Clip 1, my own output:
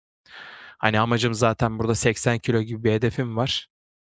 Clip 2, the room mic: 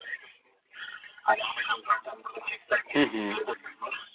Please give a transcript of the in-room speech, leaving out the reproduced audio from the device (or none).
Hı hı.